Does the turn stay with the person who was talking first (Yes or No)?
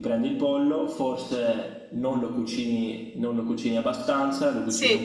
Yes